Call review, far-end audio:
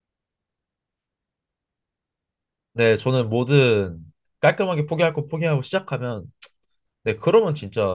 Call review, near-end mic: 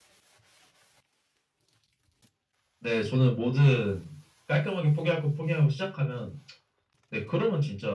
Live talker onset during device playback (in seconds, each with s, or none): none